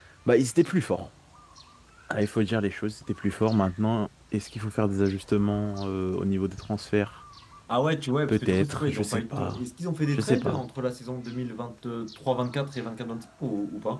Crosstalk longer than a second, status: present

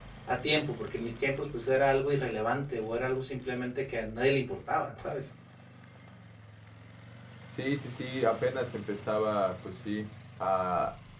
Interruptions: none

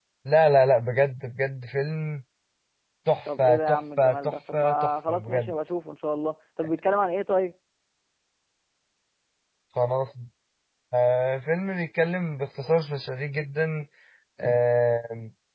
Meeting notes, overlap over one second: present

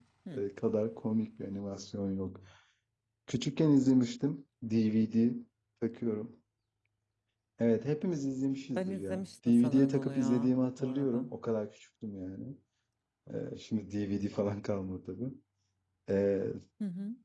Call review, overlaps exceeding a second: present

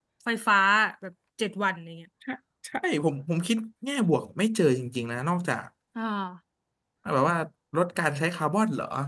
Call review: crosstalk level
none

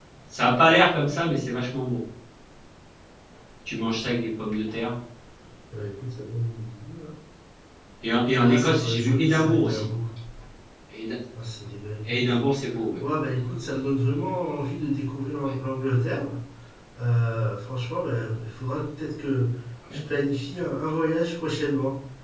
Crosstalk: present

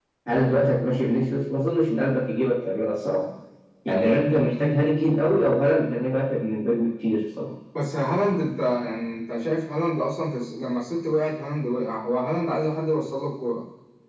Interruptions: none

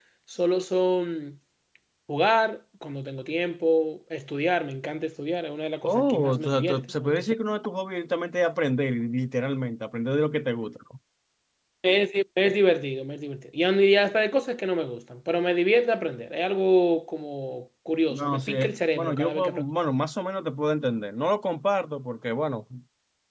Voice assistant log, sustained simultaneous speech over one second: present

